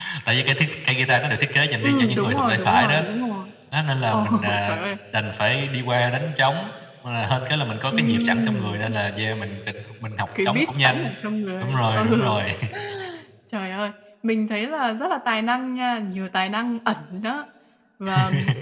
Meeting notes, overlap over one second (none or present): present